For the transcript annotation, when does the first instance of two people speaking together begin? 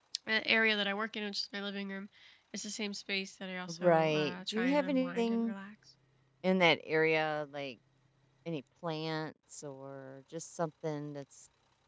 3.7 s

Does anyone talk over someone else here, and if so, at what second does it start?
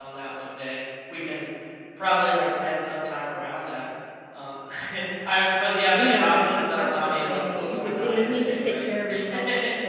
6.0 s

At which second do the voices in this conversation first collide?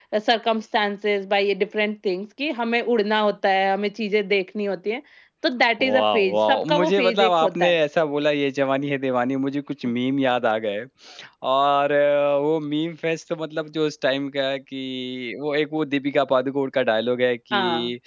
5.8 s

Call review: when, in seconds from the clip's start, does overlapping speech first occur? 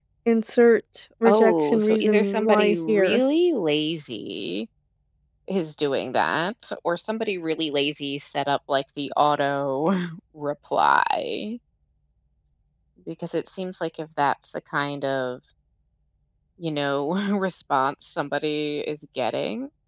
1.3 s

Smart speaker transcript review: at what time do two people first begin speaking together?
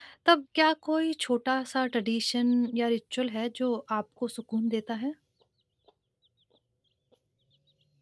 none

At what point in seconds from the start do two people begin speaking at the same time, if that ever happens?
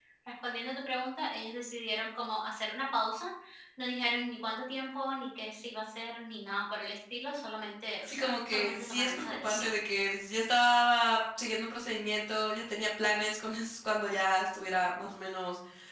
8.1 s

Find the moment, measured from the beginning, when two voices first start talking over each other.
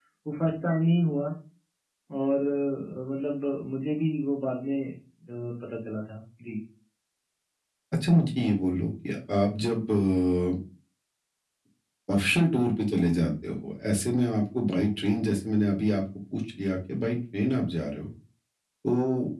none

